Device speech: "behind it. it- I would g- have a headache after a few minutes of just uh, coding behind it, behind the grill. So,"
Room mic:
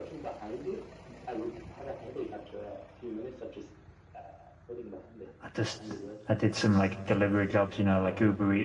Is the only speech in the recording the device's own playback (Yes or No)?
No